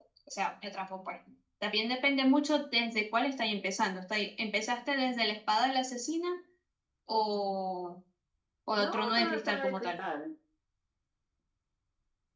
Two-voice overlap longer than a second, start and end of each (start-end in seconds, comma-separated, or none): 8.8-10.0